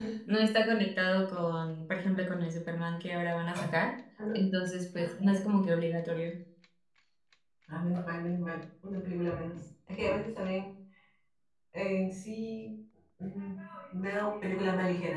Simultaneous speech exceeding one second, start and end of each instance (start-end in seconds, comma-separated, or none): none